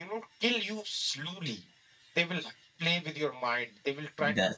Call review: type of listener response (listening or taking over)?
listening